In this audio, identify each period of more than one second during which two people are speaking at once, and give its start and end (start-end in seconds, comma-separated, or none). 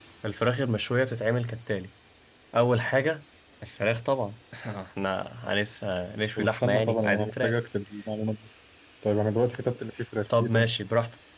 6.4-7.6